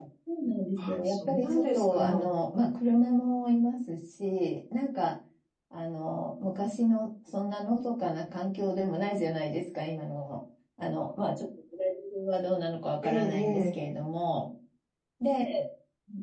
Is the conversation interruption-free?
No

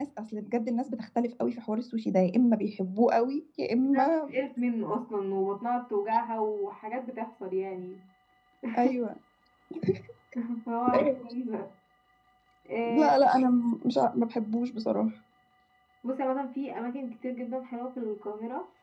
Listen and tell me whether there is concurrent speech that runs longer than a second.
No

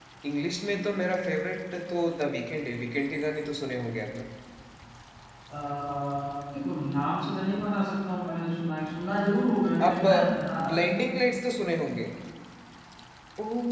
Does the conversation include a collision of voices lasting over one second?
No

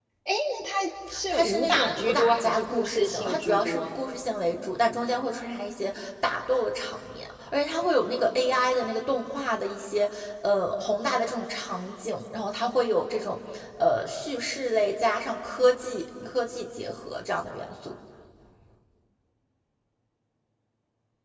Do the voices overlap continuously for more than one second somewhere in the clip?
Yes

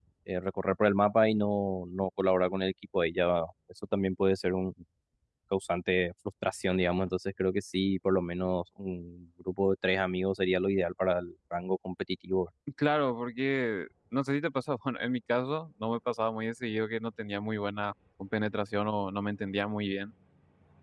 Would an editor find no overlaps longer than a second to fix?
Yes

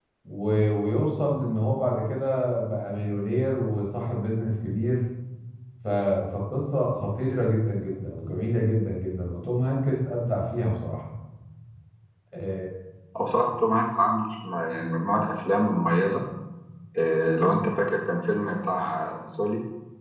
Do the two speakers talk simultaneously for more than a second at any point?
No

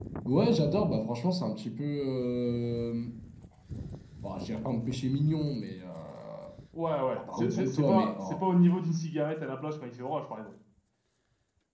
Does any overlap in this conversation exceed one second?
Yes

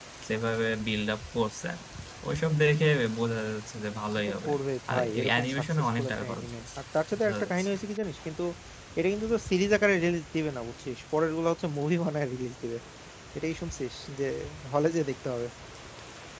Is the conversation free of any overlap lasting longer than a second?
No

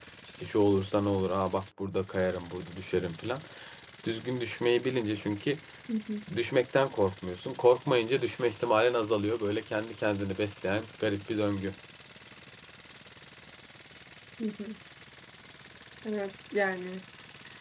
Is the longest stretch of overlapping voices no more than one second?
Yes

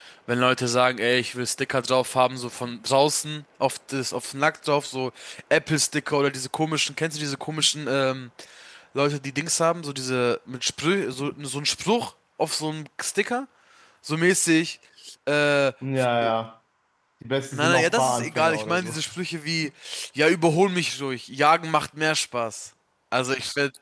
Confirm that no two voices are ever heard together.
No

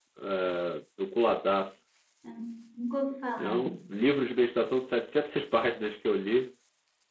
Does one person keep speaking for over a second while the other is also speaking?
No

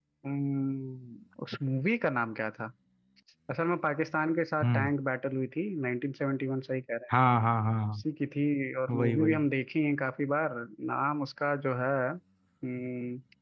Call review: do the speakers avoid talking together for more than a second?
Yes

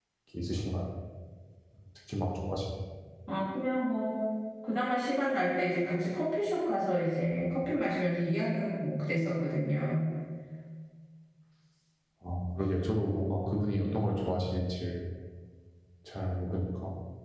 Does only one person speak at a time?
Yes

